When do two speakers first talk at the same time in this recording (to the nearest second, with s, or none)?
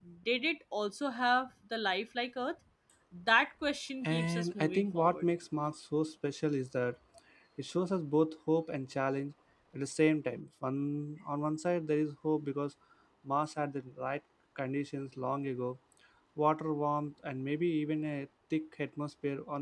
4 s